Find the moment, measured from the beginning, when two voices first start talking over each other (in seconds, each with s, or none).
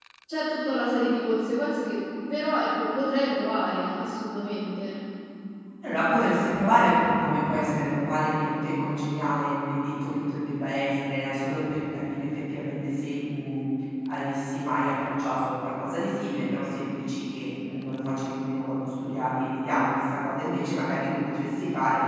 none